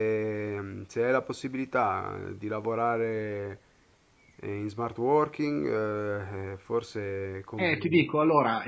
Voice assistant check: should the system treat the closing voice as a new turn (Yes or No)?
Yes